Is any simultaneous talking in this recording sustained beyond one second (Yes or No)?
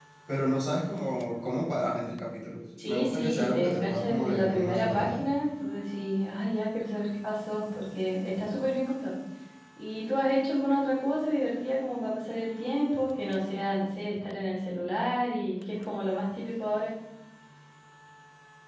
Yes